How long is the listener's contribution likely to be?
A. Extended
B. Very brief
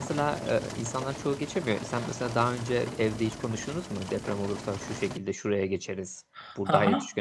A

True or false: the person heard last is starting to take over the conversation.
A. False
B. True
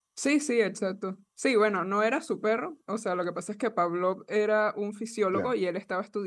A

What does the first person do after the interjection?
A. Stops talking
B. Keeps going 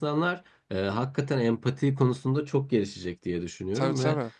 B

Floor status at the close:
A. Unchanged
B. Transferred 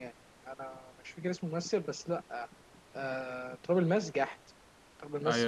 B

